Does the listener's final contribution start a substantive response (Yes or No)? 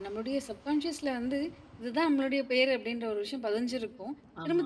No